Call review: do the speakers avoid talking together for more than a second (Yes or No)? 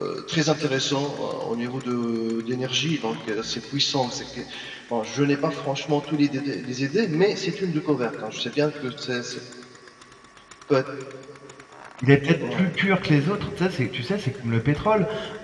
Yes